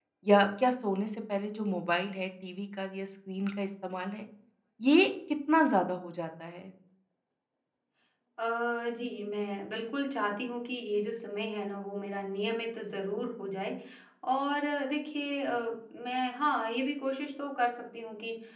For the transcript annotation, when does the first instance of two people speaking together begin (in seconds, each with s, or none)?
none